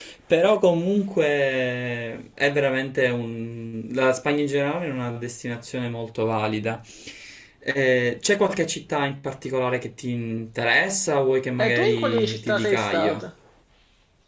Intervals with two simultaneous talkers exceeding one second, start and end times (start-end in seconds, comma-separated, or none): 11.6-13.2